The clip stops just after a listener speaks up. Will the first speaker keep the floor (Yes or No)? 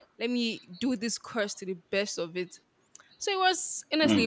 Yes